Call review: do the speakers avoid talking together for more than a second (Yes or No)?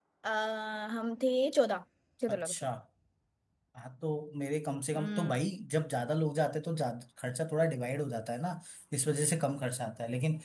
Yes